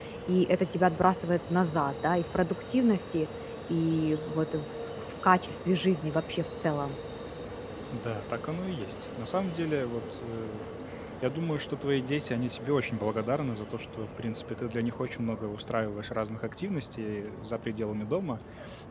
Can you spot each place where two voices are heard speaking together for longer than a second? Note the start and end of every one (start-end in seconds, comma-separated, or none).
none